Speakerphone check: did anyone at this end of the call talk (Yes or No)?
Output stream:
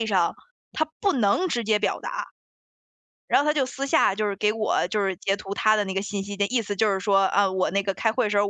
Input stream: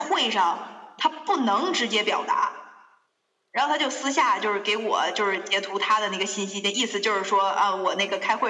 No